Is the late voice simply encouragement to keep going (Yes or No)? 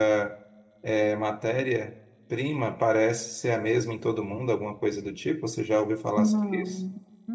No